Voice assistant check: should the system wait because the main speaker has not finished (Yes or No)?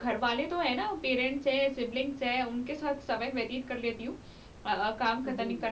Yes